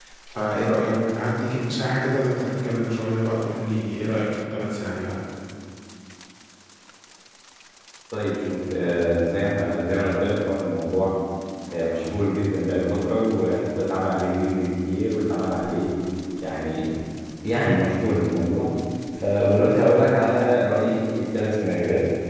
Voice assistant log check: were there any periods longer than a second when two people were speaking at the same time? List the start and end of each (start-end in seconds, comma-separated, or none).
none